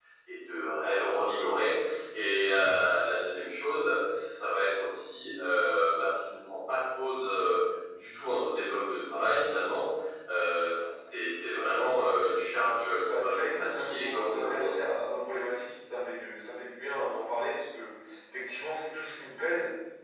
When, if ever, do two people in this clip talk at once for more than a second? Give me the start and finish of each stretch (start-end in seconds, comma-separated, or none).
13.1-14.9